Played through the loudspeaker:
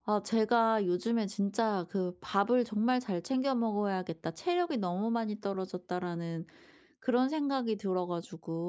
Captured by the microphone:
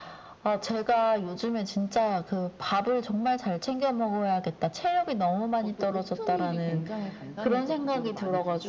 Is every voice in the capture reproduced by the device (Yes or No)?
No